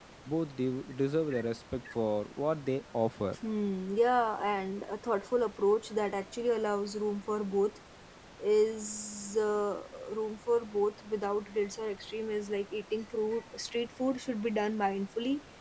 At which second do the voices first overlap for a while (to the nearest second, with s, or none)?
none